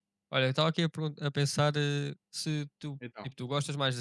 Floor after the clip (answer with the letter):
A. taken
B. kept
B